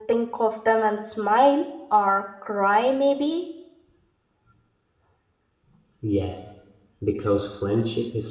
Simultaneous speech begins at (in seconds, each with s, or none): none